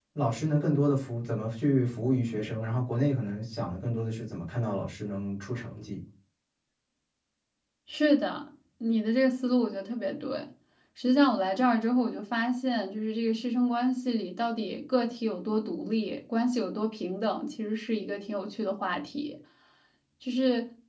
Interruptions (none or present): none